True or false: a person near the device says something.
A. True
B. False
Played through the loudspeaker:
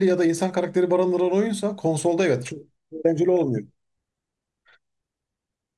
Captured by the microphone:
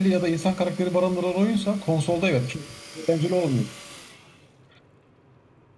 B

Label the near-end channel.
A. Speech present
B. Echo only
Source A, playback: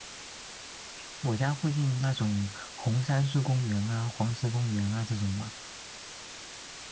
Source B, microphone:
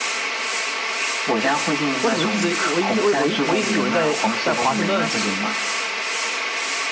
A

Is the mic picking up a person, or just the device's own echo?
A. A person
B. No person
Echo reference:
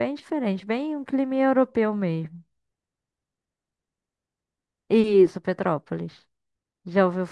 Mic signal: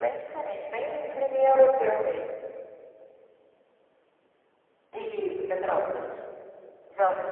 B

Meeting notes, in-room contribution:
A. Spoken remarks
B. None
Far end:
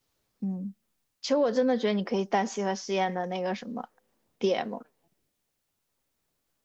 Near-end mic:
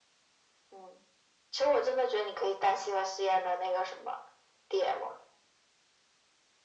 B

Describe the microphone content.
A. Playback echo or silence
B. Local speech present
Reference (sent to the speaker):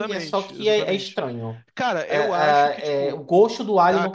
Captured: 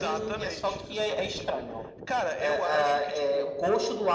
A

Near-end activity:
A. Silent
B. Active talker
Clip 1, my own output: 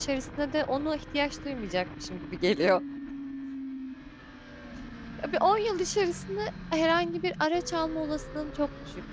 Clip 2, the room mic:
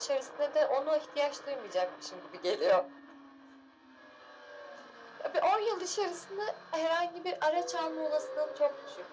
A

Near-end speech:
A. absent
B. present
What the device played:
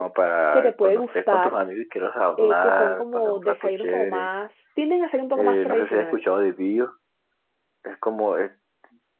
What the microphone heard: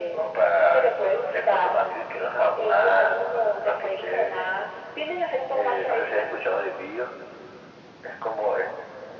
A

